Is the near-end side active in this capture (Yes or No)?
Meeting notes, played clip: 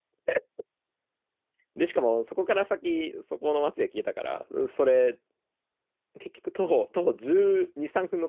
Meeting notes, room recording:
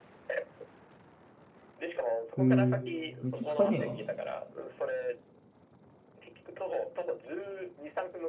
Yes